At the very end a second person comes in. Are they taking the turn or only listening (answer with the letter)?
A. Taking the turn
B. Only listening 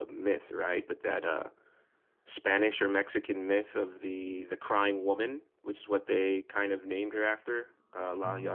A